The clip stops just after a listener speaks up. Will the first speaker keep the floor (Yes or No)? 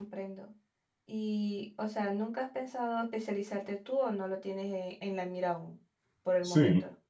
No